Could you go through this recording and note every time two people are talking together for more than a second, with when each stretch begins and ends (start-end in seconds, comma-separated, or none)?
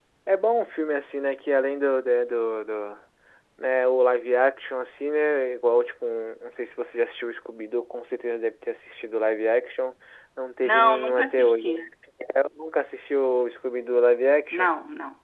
10.6-11.9